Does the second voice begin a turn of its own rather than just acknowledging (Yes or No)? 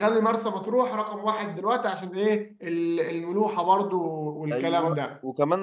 Yes